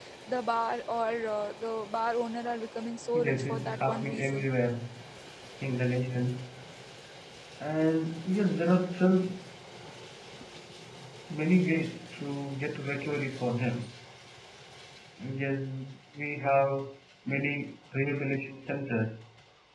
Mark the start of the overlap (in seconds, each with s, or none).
3.1 s